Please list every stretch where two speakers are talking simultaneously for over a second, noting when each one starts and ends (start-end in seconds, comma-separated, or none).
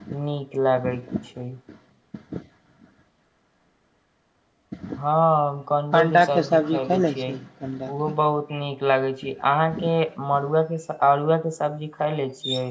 6.0-7.2